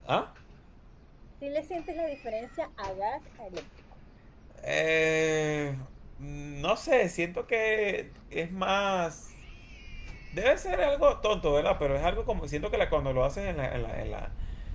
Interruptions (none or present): none